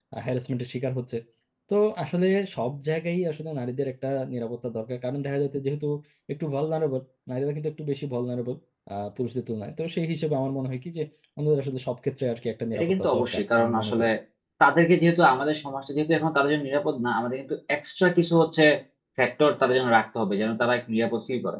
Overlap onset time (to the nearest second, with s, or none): 13 s